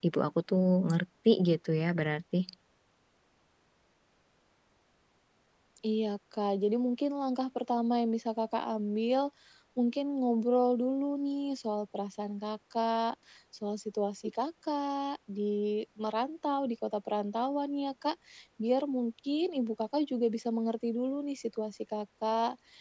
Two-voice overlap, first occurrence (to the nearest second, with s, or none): none